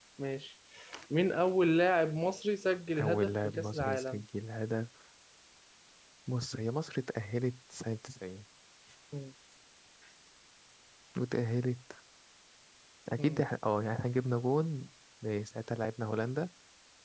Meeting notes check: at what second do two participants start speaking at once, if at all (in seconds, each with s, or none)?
2.9 s